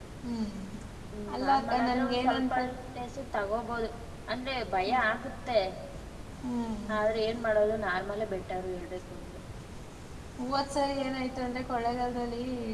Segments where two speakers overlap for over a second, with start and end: 1.4-2.6

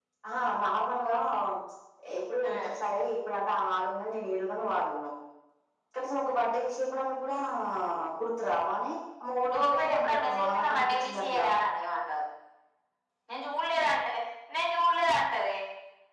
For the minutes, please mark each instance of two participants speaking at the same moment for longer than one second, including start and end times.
9.5-11.5

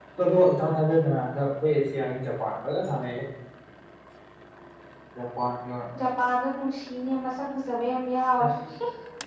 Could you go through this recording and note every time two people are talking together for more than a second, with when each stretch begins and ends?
none

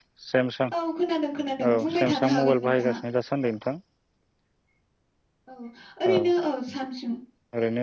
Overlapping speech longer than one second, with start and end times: 1.7-3.0

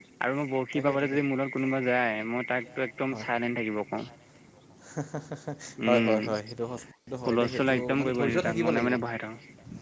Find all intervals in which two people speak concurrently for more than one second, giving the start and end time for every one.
7.3-8.9

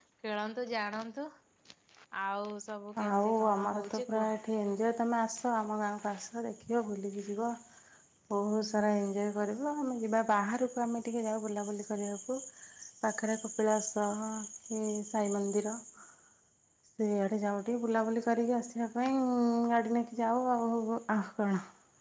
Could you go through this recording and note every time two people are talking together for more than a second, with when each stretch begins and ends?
3.0-4.3

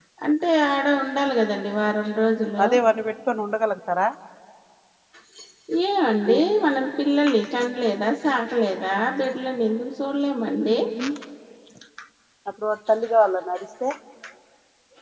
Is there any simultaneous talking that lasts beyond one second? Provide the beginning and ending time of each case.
none

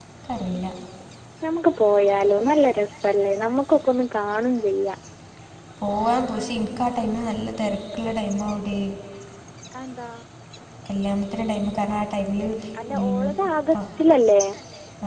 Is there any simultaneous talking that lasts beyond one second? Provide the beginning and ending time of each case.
none

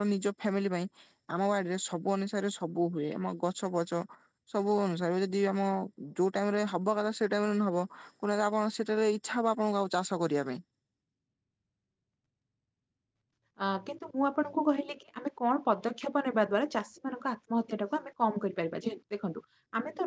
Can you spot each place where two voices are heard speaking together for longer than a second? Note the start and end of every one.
none

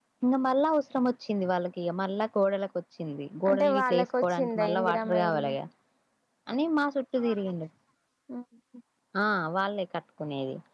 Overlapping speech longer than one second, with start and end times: 3.5-5.5

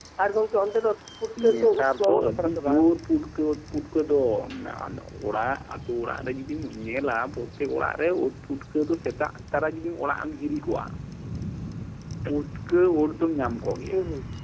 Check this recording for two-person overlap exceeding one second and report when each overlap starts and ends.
1.5-2.8

